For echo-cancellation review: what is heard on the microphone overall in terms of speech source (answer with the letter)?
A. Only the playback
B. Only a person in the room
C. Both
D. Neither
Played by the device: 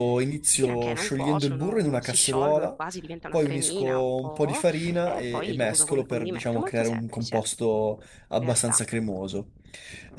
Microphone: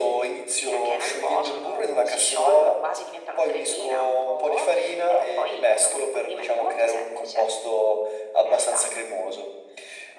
A